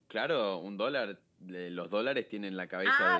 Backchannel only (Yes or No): No